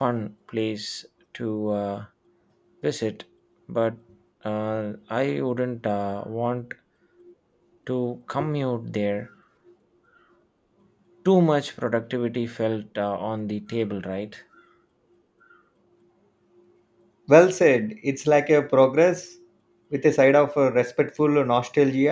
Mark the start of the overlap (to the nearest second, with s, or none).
none